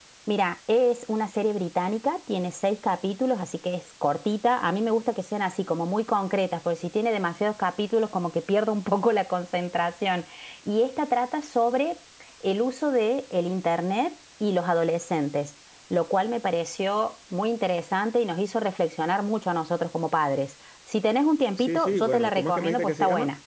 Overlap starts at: 21.6 s

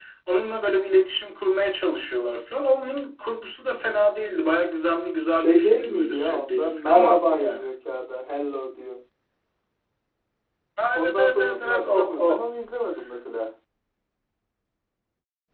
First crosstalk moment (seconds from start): 5.3 s

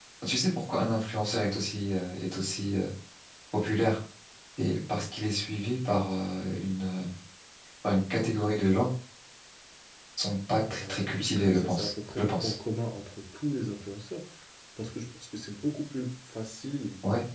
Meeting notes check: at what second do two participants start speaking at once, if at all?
10.8 s

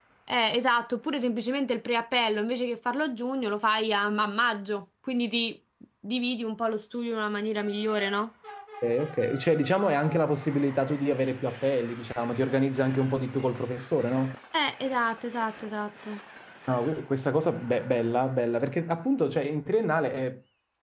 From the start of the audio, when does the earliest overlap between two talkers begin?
none

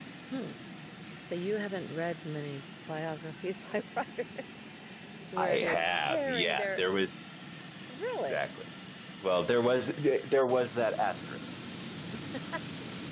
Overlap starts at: 5.4 s

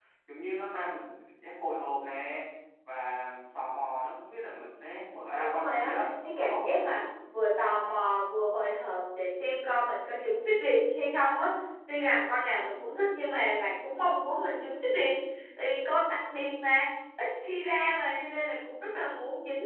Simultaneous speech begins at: 5.3 s

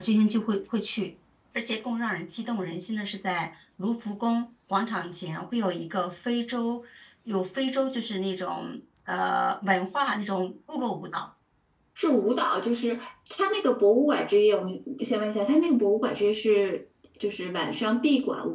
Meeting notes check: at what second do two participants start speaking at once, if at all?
none

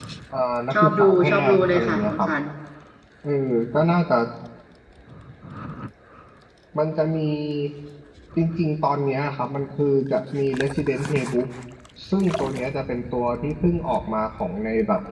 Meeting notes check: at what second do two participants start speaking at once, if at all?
0.7 s

